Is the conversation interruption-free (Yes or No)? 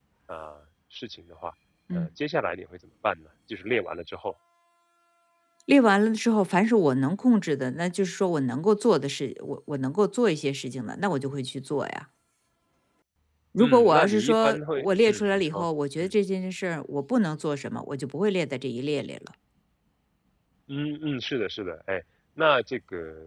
No